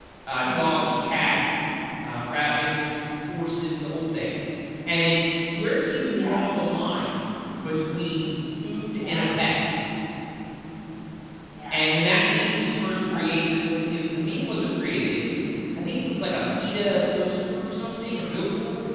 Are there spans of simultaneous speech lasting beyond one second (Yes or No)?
No